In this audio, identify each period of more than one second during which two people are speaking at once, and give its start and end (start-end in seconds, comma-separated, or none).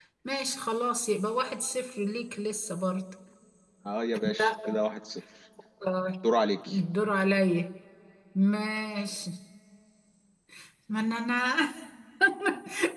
none